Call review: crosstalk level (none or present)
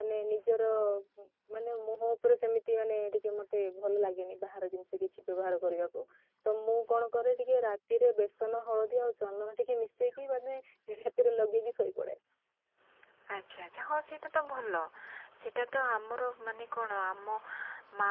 none